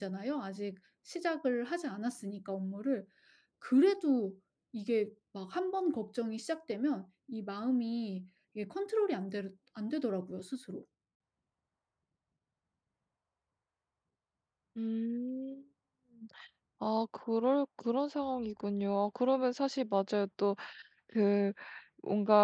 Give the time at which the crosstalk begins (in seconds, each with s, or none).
none